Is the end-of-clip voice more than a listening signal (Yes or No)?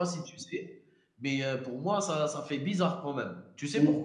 No